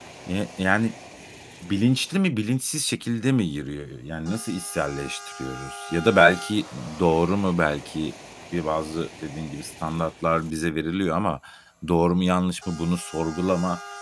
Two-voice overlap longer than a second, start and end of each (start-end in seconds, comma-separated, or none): none